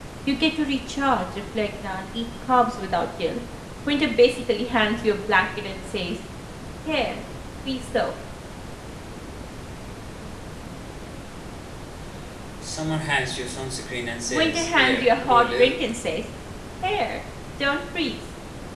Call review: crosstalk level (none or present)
present